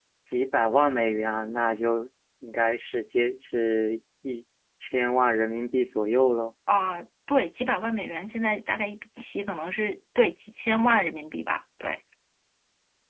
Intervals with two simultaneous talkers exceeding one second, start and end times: none

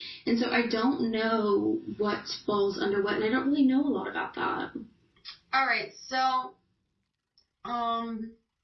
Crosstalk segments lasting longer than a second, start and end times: none

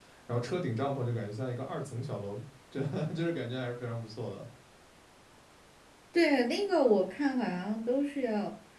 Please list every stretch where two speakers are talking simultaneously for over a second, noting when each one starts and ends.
none

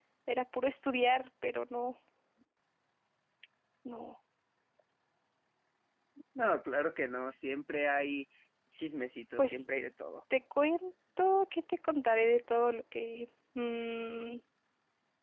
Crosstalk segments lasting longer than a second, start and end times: none

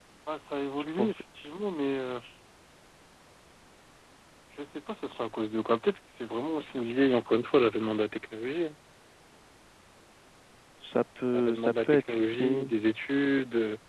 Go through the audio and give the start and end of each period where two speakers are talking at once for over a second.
11.3-12.6

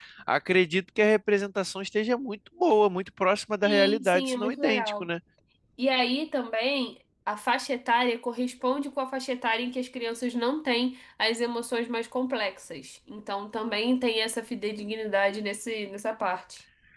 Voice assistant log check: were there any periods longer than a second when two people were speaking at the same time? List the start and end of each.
3.6-5.1

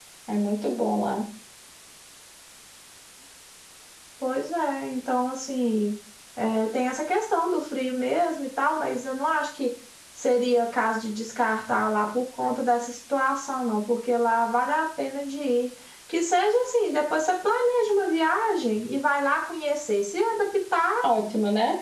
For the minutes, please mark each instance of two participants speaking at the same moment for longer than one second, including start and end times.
none

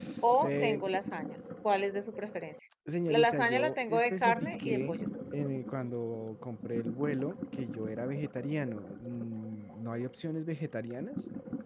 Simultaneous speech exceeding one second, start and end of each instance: 3.1-4.9

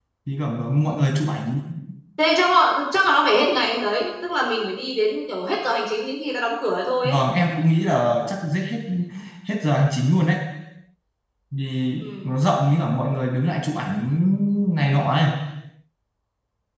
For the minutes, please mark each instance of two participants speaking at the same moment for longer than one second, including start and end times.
none

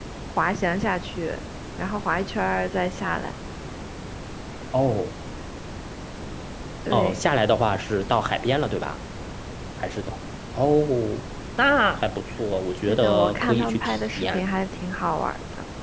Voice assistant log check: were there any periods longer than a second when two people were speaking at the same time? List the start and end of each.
12.8-14.4

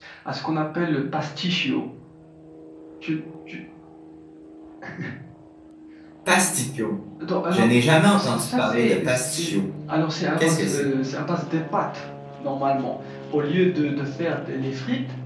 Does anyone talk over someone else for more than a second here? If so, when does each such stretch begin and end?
8.2-9.5

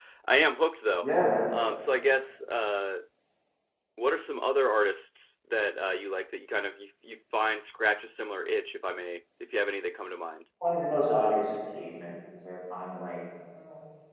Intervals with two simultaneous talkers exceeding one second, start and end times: none

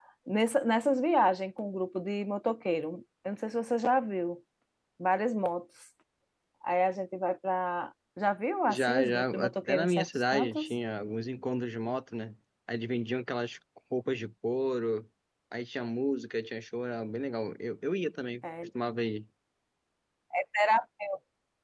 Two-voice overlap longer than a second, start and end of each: 8.7-10.7

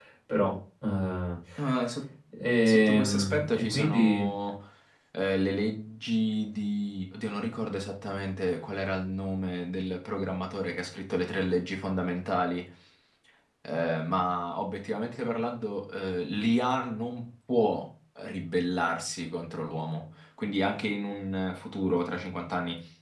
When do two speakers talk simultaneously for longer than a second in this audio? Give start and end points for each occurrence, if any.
2.6-4.3

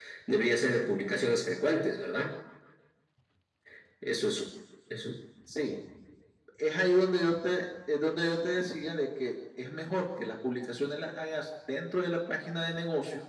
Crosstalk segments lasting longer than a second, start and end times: none

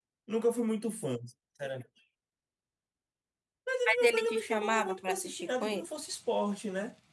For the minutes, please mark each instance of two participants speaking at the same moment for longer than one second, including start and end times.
3.9-5.8

